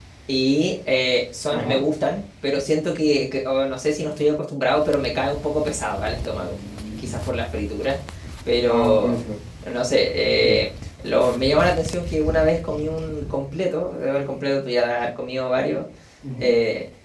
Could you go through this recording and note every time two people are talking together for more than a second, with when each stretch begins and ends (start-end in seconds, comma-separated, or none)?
none